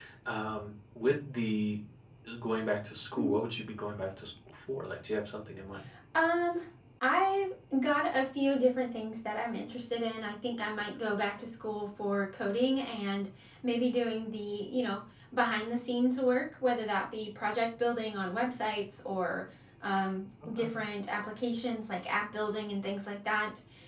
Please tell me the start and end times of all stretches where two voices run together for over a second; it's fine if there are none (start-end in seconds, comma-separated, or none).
none